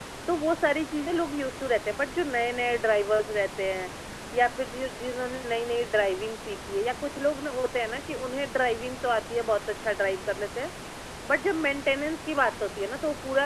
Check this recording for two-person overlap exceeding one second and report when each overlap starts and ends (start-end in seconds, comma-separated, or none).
none